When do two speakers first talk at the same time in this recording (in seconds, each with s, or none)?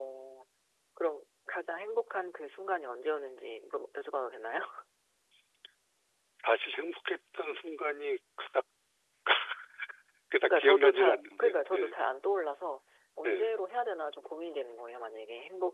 10.4 s